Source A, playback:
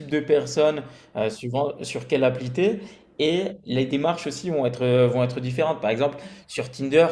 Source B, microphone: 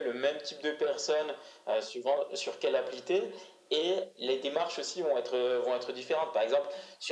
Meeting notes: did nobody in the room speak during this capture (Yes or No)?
Yes